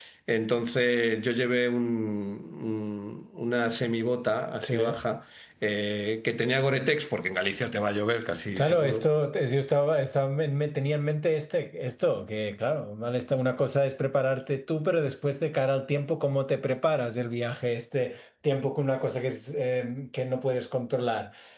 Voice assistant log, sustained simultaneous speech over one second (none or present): none